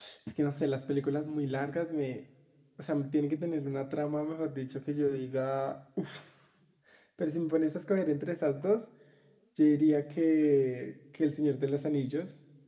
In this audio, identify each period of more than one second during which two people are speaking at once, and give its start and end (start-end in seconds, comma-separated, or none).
none